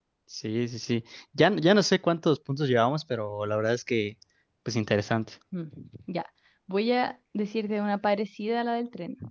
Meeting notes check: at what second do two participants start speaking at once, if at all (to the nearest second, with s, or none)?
none